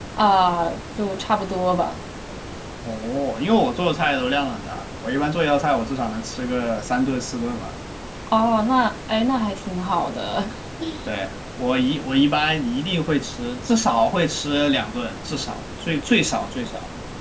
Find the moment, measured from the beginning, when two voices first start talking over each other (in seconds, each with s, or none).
none